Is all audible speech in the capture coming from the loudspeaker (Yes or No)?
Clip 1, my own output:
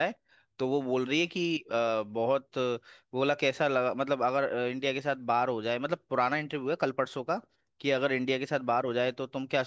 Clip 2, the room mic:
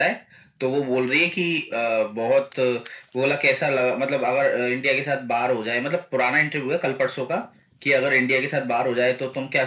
Yes